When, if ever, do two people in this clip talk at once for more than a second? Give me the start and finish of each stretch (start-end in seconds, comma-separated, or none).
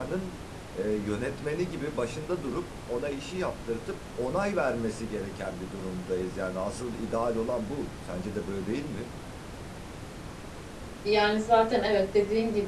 none